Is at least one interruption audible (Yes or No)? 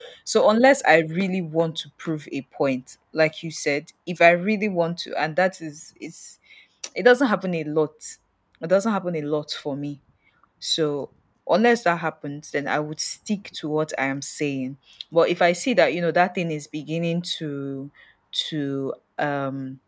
No